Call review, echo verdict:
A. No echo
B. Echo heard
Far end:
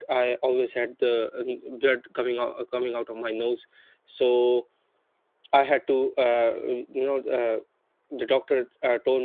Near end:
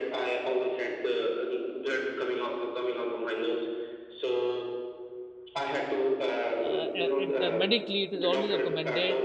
B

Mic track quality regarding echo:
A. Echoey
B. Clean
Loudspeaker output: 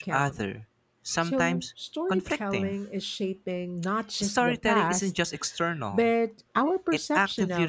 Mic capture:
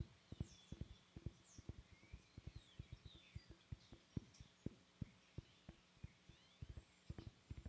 B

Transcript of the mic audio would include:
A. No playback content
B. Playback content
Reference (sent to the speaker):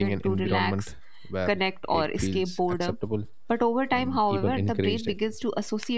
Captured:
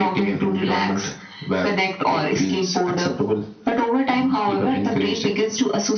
B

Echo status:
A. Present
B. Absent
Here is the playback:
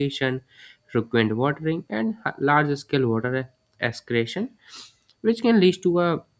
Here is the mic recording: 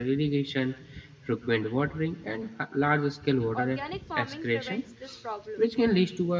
A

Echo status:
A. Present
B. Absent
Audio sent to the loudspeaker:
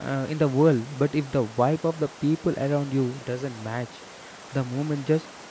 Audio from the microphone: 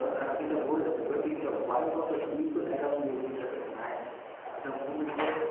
A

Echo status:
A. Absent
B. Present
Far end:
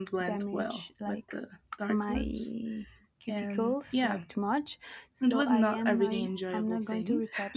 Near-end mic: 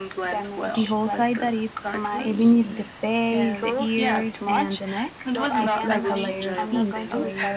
B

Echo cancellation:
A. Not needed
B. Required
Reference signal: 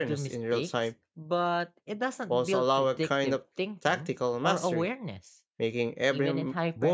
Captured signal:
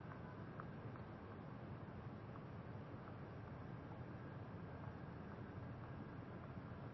A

